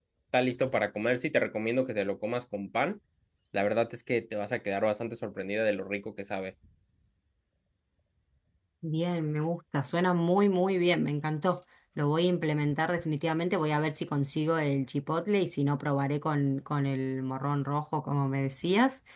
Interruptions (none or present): none